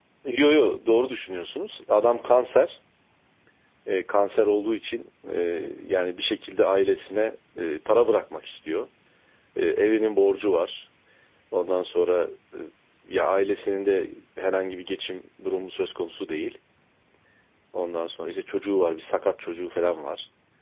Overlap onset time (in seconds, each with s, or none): none